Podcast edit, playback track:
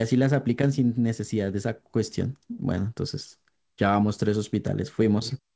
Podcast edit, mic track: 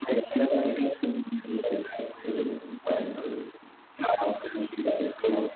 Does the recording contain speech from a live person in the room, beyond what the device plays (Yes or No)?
No